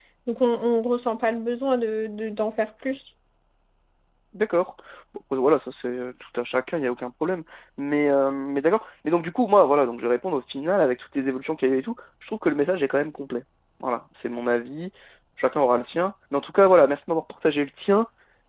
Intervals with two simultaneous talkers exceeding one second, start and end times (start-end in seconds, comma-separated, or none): none